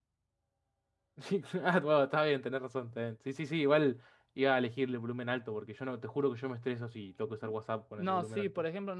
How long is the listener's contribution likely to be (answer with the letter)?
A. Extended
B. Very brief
A